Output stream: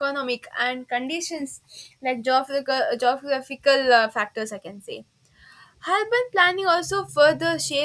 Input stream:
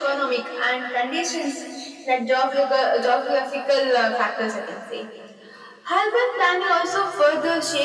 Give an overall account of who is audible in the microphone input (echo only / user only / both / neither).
echo only